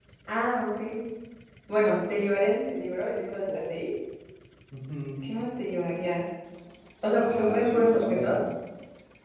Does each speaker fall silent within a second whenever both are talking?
No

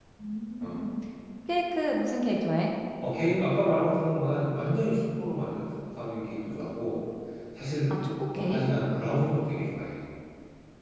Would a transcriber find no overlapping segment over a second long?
Yes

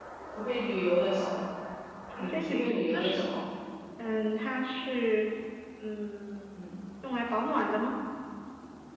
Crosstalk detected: Yes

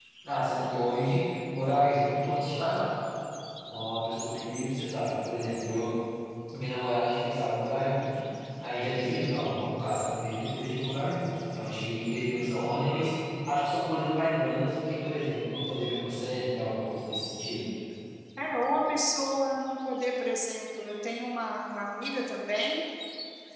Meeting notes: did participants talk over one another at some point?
No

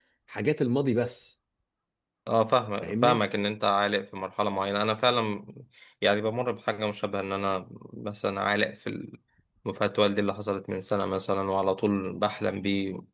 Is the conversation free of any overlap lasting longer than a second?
Yes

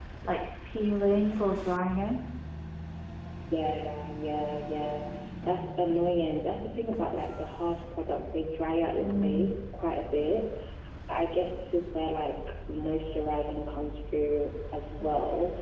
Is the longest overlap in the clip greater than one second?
No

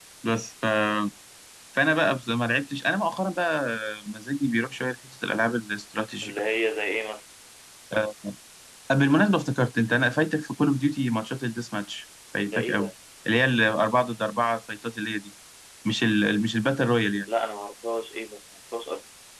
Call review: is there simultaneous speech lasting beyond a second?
No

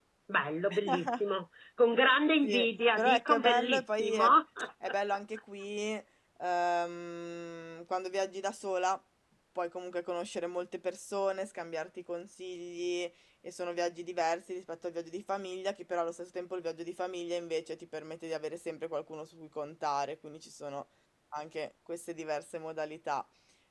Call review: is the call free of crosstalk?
No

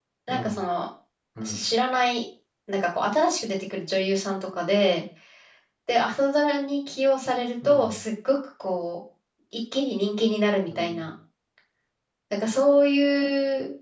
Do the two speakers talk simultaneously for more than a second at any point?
No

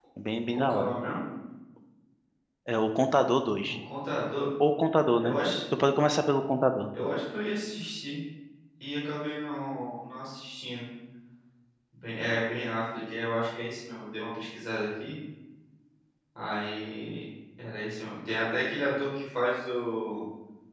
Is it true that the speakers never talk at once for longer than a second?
Yes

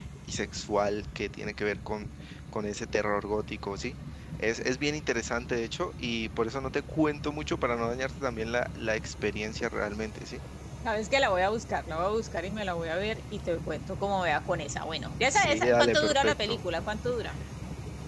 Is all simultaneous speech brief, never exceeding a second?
No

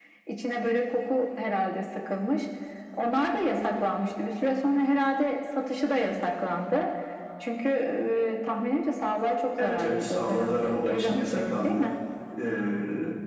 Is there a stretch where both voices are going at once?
Yes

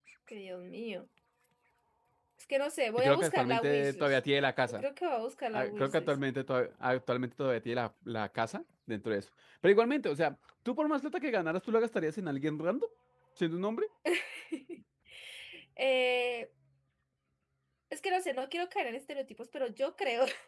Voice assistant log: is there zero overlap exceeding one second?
No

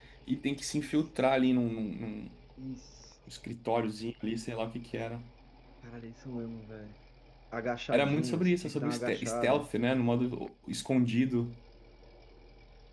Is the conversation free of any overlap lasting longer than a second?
No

